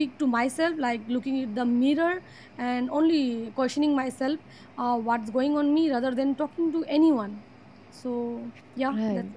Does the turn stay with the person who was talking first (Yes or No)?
No